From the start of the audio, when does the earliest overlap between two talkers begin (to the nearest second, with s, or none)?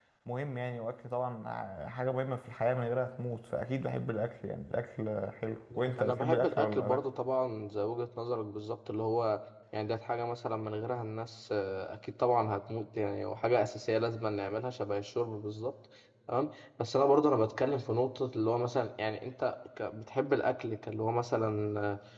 6 s